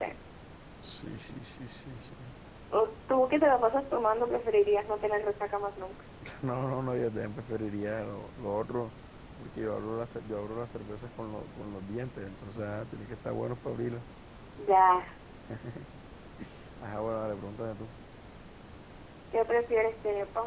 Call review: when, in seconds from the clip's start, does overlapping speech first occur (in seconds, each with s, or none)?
none